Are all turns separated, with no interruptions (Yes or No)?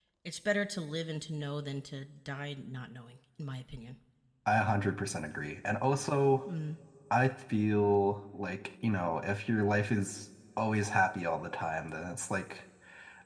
Yes